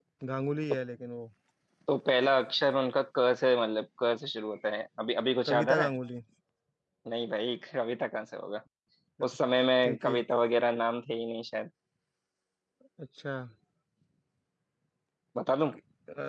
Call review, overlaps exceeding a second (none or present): none